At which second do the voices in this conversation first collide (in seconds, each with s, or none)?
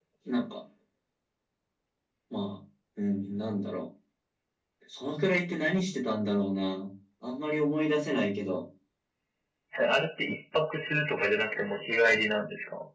none